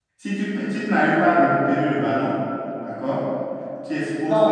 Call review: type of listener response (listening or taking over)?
taking over